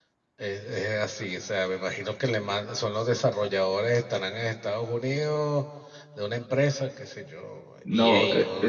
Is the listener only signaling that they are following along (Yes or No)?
No